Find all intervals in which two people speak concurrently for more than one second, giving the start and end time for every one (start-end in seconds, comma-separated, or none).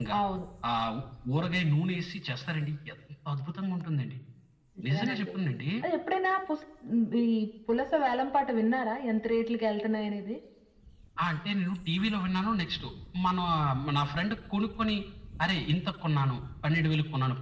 none